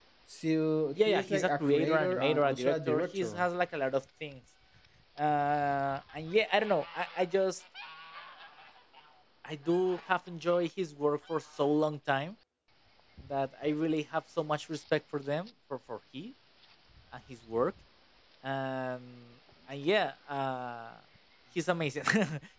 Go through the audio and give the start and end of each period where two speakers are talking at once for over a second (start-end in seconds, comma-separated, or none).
0.9-3.5